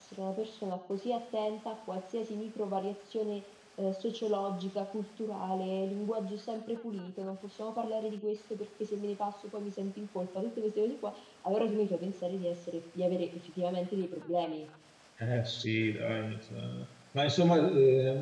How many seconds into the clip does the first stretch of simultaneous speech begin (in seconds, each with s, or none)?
none